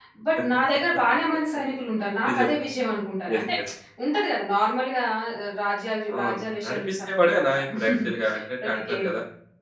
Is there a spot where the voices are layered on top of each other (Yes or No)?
Yes